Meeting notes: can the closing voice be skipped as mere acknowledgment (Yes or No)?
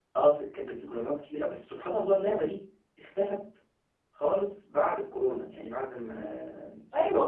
No